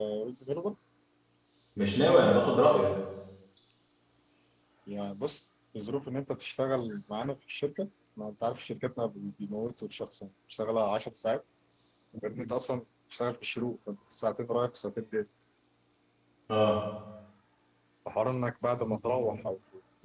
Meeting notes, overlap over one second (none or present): none